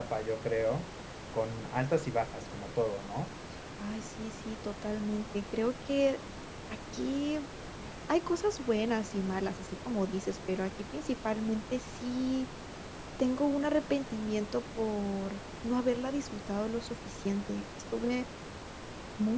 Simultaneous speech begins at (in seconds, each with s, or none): none